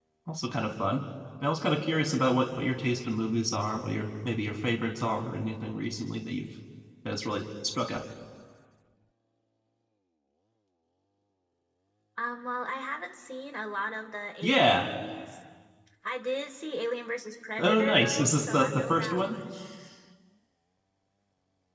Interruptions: present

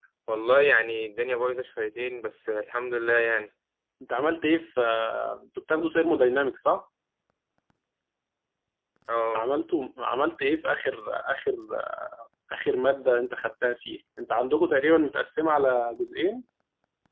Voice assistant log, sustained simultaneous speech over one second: none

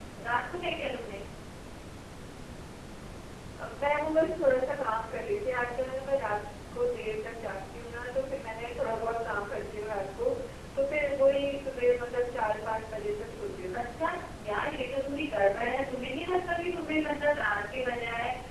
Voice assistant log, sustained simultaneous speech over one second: none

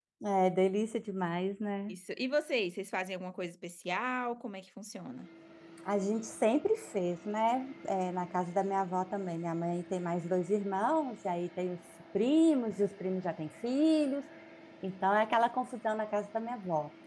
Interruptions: none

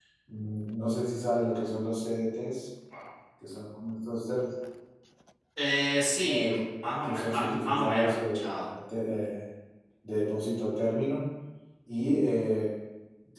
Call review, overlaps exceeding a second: present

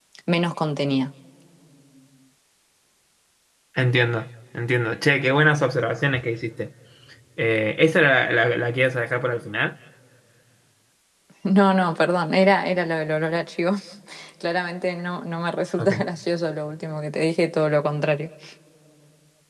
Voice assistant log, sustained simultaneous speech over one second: none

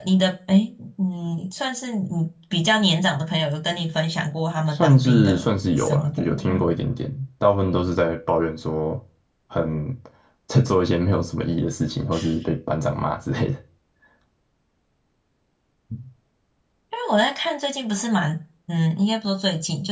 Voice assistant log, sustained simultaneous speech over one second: present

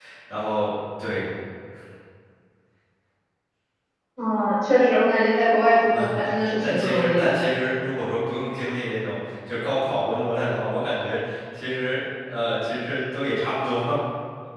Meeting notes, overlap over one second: present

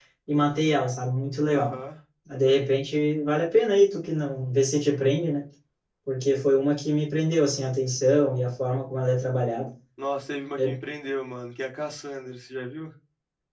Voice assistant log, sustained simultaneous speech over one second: none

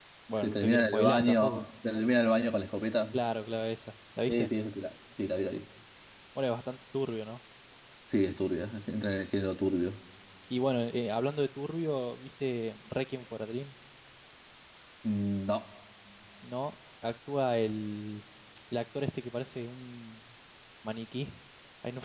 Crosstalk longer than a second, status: present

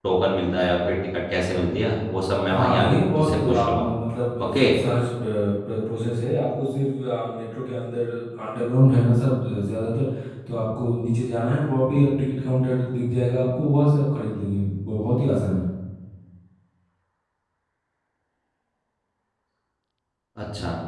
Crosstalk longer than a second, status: present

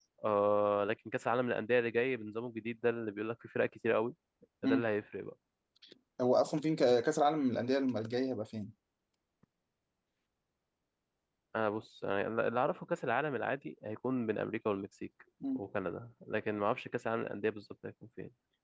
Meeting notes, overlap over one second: none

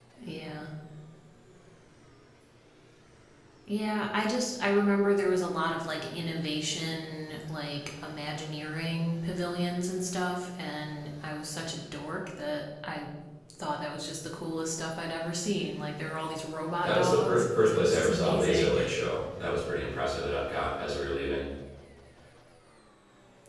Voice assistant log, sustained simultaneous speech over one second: present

